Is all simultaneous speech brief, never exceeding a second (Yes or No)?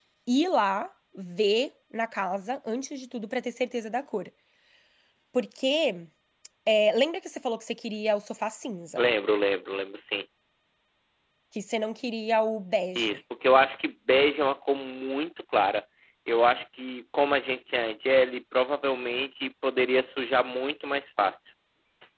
Yes